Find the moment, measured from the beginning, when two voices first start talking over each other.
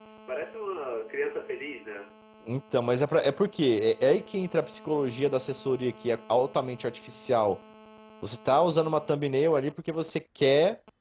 none

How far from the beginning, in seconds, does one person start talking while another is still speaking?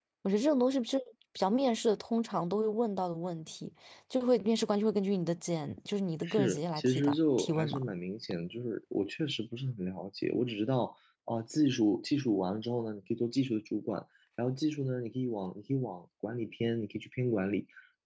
6.2 s

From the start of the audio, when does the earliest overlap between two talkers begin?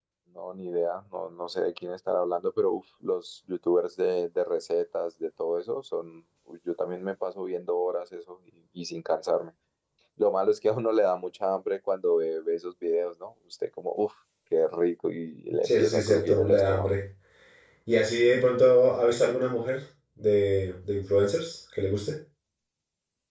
15.6 s

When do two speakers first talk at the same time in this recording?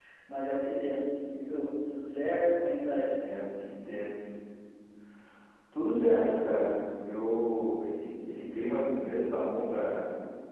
none

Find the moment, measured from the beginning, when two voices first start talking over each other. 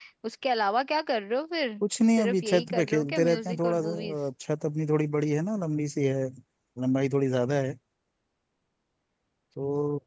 2.2 s

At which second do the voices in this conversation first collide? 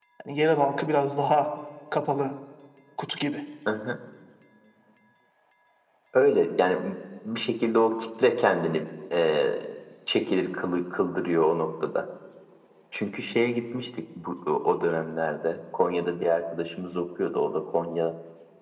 none

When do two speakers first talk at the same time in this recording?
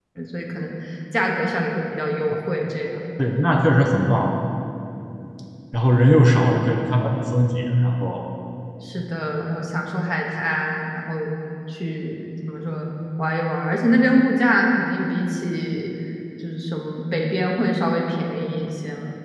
none

